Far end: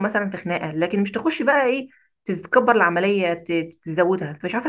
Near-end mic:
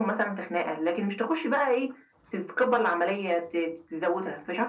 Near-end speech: none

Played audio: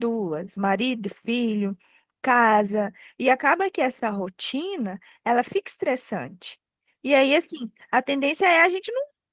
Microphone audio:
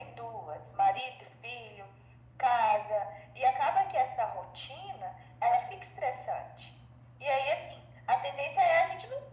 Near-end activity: none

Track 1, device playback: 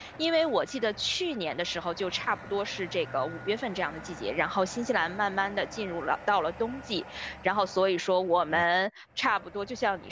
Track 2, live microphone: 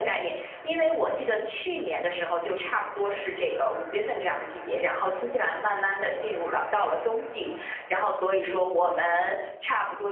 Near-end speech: none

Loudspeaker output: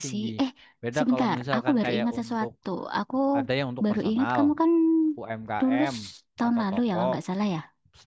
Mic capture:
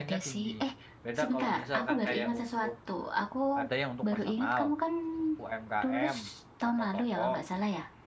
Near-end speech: none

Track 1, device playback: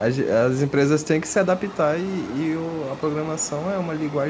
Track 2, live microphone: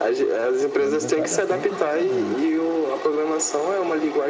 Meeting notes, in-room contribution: present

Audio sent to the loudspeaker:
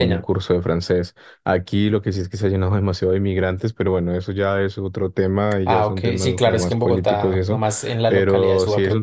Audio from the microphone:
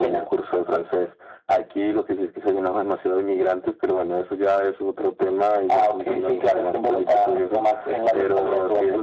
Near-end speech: none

